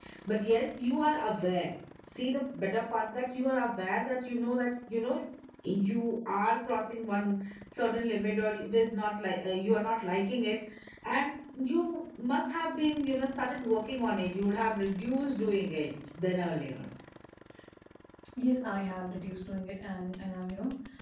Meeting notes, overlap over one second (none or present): none